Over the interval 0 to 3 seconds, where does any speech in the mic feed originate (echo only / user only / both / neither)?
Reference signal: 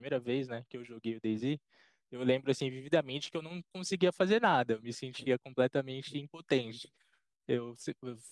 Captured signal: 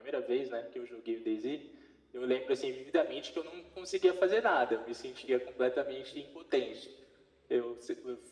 echo only